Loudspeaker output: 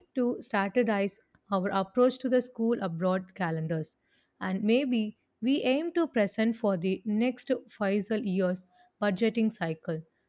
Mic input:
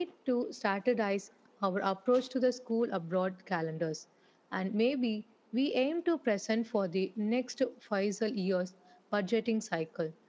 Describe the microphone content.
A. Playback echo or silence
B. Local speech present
A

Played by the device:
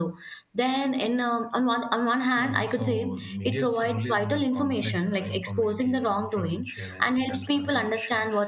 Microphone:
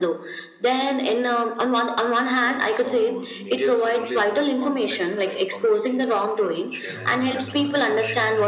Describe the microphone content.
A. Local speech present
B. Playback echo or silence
A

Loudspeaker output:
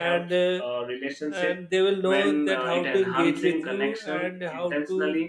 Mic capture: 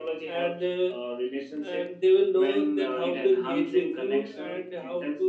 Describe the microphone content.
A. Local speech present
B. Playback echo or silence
B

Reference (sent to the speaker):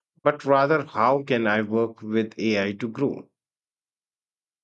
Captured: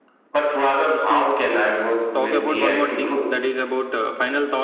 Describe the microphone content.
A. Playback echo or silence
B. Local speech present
B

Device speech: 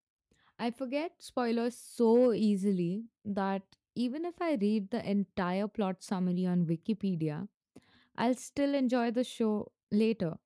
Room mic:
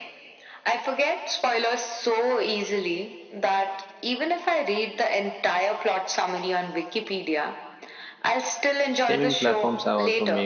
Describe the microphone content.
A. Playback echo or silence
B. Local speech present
B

